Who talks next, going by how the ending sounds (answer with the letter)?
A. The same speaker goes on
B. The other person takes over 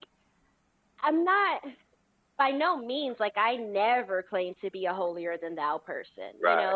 A